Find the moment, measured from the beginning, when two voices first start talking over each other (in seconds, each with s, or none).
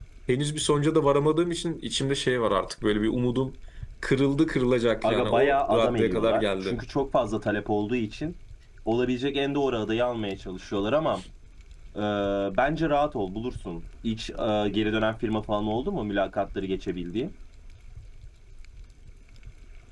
5.0 s